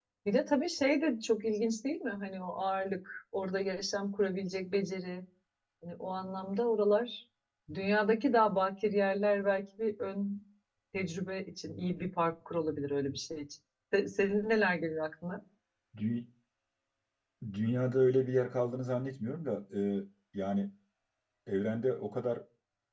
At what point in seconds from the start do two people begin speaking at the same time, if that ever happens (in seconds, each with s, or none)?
none